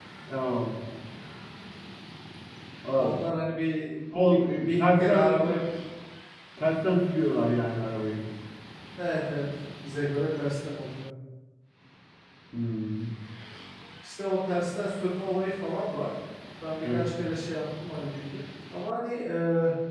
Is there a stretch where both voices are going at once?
Yes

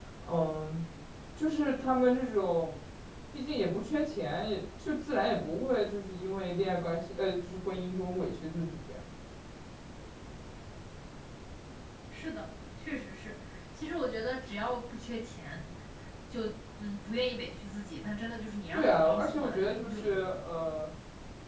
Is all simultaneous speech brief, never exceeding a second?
No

